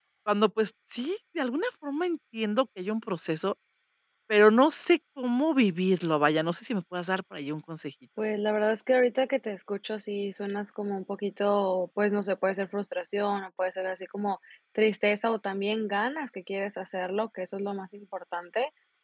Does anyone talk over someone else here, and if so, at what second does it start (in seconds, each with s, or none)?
none